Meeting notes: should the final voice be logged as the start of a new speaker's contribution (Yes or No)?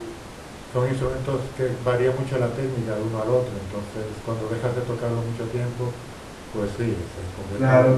Yes